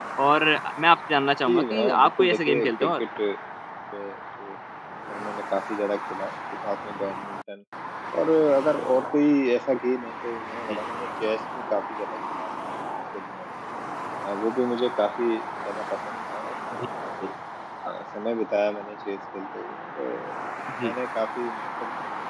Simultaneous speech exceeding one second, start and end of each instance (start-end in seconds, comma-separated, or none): 1.5-3.0